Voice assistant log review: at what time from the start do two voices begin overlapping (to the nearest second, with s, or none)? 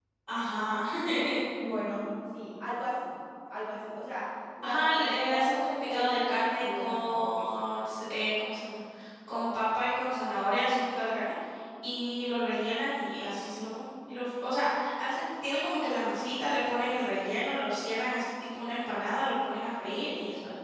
5 s